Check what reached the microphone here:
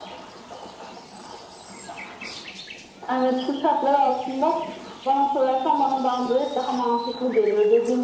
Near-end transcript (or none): none